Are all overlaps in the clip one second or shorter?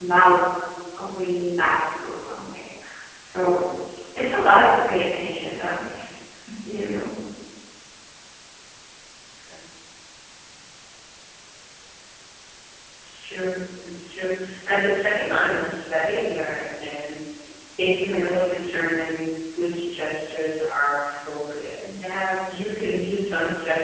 Yes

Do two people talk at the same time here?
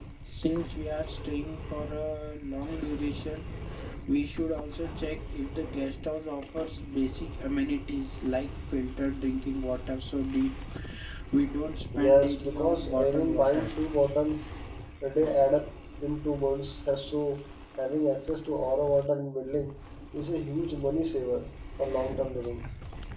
Yes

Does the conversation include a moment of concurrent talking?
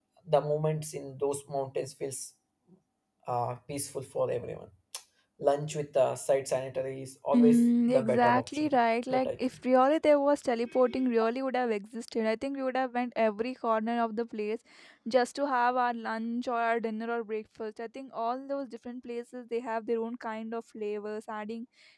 Yes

